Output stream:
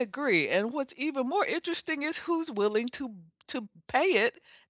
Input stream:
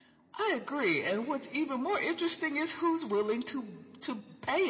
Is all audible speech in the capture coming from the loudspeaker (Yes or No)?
Yes